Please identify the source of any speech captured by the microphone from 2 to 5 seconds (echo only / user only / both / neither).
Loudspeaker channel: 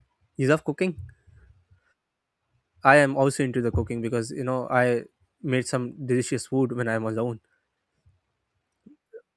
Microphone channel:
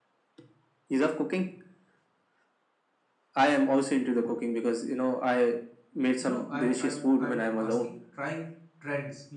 echo only